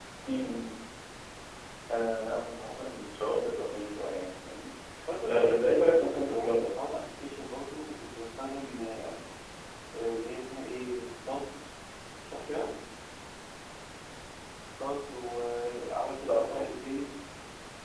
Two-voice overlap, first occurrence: 5.3 s

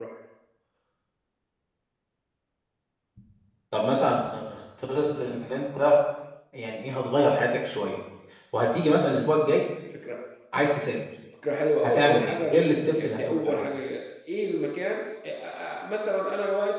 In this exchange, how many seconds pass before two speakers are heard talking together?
11.8 s

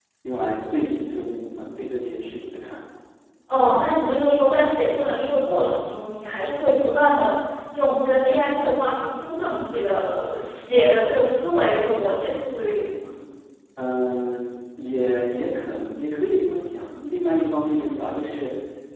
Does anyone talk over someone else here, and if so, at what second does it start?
none

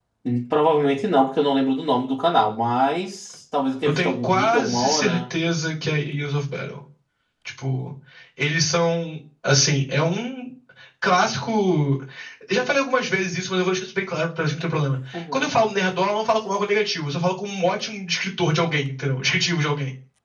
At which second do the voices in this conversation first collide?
3.8 s

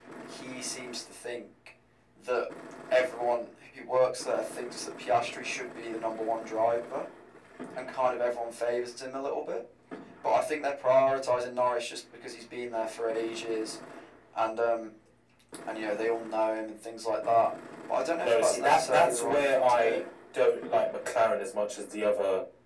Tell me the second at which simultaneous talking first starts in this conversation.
18.2 s

